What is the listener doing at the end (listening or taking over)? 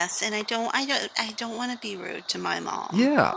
taking over